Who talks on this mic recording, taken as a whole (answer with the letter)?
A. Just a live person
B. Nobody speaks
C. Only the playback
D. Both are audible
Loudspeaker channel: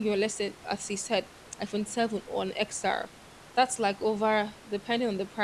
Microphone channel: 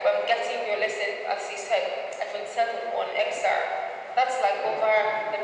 C